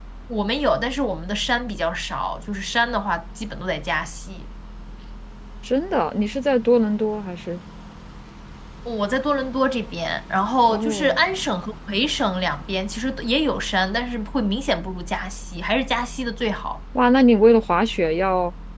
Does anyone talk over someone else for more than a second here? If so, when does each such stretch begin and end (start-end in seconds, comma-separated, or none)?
none